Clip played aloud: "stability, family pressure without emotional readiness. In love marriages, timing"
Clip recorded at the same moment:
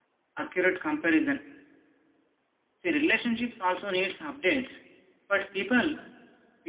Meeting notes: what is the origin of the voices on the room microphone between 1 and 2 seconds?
user only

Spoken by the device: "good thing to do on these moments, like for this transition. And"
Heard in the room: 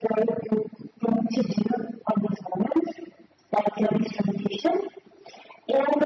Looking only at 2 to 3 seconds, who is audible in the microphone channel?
echo only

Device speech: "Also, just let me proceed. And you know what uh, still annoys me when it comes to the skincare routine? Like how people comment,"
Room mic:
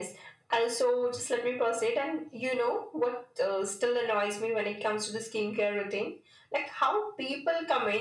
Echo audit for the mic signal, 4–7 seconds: echo only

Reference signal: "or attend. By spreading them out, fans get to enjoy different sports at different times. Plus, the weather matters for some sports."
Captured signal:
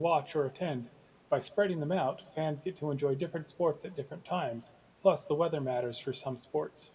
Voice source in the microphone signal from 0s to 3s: echo only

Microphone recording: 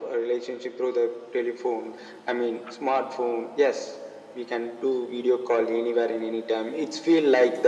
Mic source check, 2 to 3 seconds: echo only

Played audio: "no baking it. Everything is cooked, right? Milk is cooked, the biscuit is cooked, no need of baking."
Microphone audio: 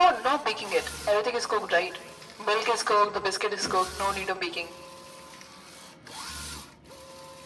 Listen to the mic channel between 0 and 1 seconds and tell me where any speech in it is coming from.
echo only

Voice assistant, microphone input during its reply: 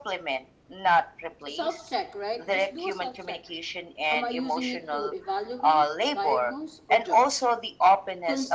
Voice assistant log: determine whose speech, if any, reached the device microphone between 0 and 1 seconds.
echo only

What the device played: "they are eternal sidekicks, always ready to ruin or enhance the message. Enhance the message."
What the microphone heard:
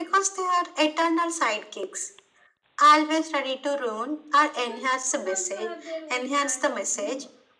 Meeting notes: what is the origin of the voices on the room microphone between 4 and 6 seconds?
both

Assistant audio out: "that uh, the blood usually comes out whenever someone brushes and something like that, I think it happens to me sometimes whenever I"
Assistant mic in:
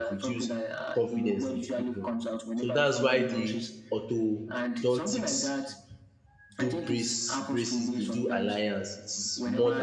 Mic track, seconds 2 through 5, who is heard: both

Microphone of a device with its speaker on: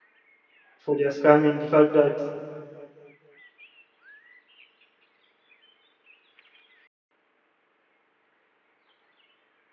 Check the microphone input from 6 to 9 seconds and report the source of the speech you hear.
neither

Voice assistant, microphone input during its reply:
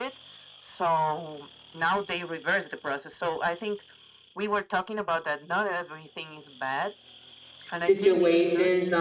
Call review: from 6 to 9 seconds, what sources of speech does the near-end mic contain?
both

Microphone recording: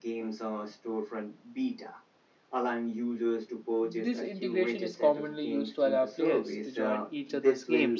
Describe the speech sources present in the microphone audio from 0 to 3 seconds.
echo only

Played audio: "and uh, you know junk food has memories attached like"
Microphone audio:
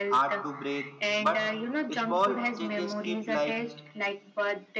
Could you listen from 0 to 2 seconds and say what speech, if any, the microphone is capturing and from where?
both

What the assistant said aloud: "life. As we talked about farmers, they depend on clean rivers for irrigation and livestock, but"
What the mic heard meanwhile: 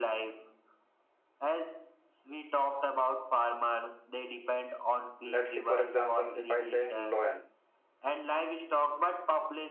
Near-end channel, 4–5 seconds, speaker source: echo only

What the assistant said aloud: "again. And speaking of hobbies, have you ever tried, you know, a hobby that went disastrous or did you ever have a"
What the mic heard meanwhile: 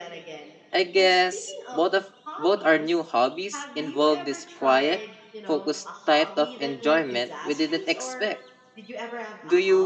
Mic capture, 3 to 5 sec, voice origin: both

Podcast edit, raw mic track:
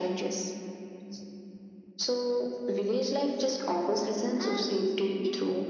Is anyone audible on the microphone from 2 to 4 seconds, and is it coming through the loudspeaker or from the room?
echo only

